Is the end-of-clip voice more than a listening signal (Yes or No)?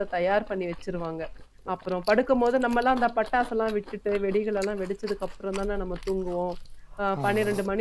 No